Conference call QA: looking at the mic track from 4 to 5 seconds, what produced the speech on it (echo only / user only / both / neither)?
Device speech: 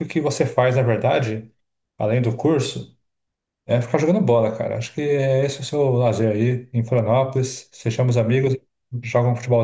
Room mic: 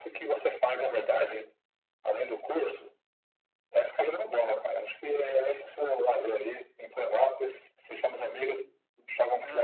echo only